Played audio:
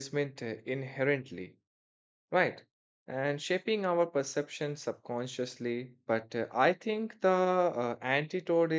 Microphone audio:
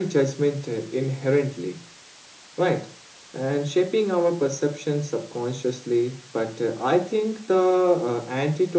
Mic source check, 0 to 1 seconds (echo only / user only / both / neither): echo only